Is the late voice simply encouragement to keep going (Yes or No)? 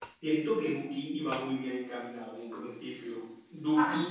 No